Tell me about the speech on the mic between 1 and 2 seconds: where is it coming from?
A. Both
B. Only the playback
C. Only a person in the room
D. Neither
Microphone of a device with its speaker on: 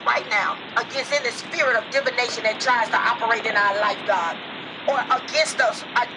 B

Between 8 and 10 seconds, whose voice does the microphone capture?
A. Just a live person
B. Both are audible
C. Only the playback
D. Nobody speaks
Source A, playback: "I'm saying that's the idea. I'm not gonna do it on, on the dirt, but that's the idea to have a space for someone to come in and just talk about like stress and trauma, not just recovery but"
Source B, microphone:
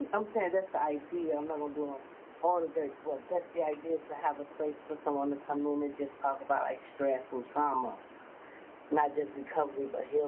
C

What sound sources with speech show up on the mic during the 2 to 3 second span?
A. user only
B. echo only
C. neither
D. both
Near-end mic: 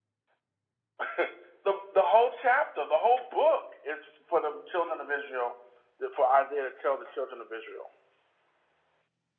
B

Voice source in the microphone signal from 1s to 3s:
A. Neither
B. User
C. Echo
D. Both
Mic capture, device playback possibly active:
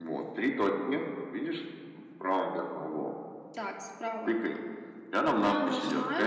C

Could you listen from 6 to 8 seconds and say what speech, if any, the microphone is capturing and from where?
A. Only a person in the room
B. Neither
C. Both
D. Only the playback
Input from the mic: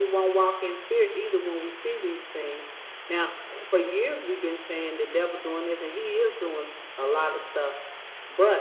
D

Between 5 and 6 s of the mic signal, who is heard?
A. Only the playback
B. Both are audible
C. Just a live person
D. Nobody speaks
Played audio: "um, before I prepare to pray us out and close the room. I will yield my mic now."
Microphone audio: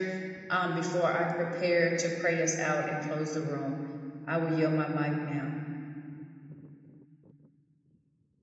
A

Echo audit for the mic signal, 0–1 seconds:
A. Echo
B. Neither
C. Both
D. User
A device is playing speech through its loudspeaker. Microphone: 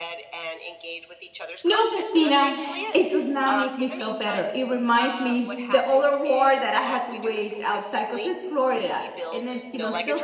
A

